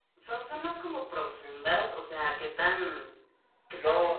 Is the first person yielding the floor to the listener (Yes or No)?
Yes